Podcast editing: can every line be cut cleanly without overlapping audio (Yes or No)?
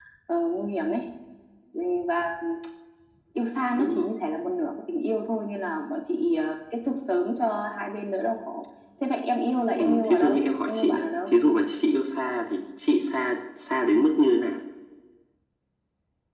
No